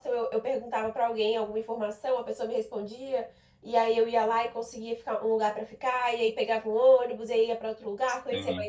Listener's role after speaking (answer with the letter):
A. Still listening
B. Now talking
A